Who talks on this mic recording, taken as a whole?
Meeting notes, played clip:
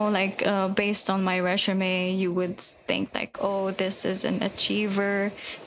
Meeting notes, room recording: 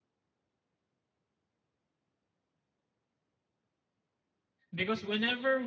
user only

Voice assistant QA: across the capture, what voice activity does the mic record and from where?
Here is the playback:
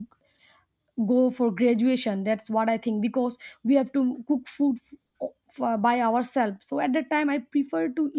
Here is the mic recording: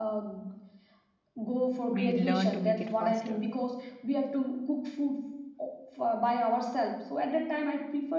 both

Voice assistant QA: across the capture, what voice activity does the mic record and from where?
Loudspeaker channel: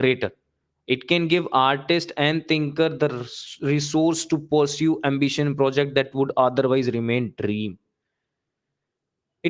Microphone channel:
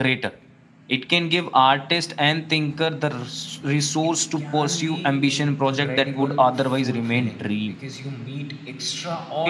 both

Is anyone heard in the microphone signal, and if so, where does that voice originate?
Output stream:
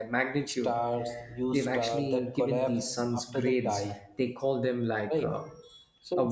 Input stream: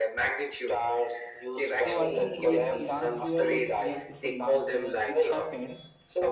both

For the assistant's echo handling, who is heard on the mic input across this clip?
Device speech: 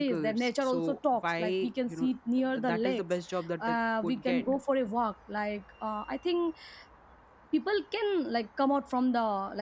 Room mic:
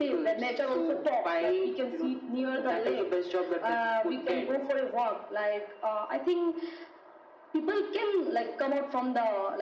echo only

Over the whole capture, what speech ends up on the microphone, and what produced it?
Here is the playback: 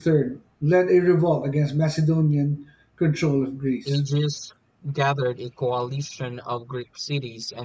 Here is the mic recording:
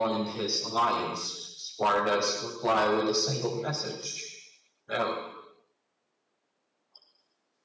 user only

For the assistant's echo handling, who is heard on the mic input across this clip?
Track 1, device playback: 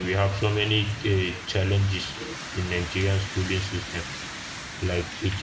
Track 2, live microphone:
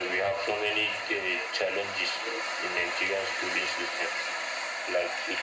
echo only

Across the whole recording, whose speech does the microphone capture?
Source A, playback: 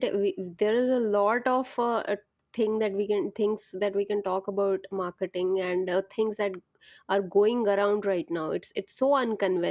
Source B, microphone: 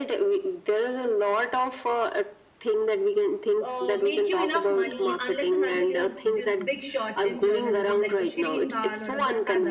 both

